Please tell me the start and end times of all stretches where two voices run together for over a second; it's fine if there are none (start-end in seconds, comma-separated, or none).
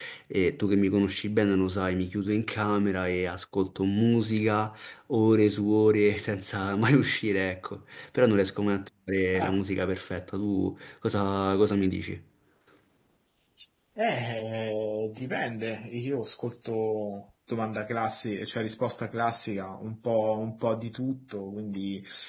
none